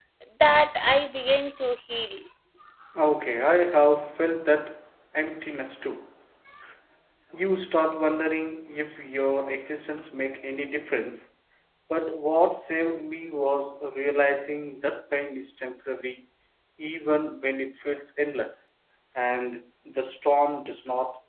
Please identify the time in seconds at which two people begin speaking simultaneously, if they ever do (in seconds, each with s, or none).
none